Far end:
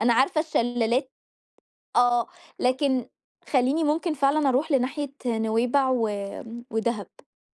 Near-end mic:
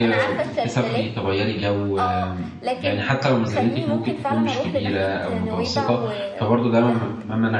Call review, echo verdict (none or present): present